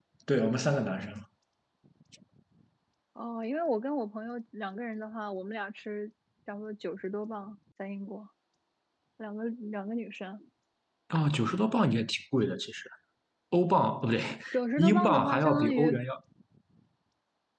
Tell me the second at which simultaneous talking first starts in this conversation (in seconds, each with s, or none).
14.8 s